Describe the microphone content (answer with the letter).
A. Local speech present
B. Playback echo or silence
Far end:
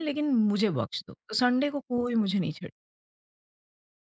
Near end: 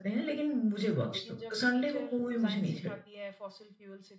A